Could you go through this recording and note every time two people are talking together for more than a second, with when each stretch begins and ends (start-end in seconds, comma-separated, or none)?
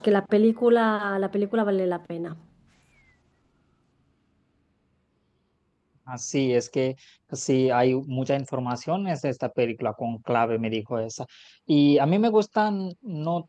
none